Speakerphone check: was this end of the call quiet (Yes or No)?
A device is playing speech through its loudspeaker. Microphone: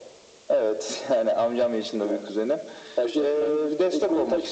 Yes